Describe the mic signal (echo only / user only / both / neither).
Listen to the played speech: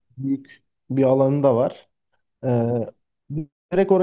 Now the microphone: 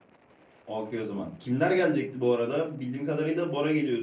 user only